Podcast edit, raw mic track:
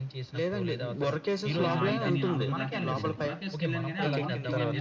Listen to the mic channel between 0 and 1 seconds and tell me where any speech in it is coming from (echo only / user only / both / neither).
echo only